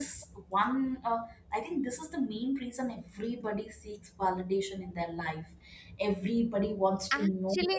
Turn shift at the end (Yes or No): Yes